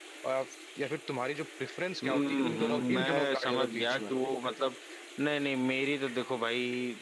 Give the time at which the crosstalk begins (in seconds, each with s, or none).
2.0 s